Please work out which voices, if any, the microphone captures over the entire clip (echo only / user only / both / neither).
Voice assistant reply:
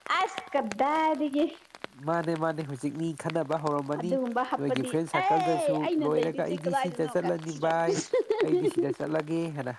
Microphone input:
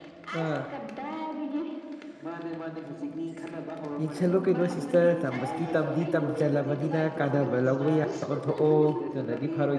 both